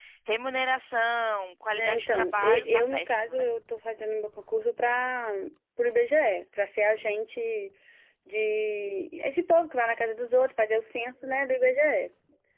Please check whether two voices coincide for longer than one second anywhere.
Yes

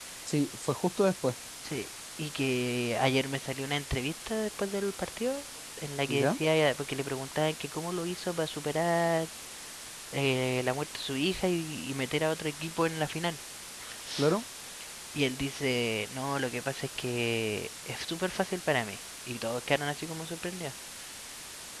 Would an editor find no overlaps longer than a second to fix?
Yes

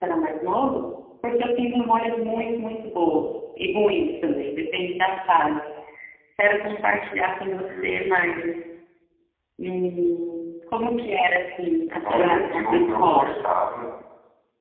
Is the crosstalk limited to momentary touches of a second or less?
No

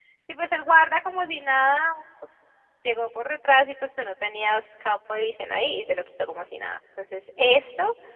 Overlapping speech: No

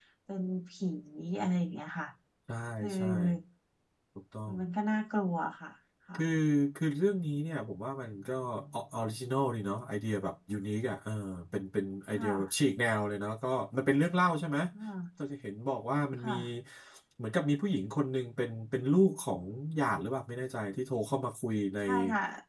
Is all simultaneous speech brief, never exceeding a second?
Yes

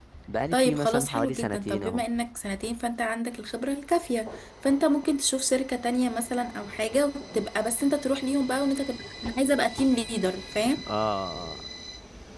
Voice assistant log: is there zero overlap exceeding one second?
No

